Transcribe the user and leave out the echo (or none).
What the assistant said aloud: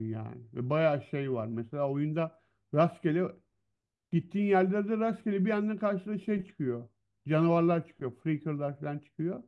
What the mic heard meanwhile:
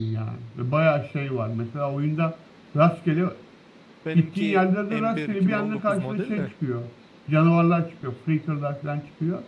Benimki M1 2019 model de.